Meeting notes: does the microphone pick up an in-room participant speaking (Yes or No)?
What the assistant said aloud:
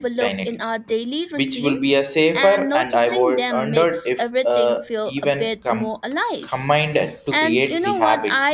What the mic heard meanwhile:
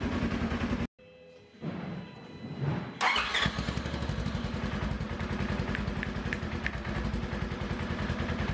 No